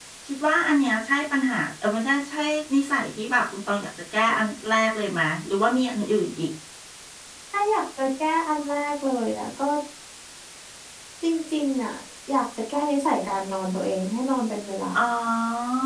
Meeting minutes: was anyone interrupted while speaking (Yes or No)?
No